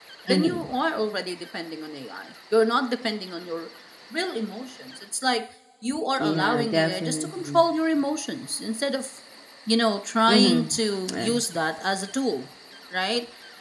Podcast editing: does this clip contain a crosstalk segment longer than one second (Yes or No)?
Yes